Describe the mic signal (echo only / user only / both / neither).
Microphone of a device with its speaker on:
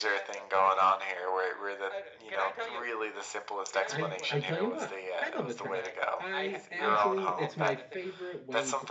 both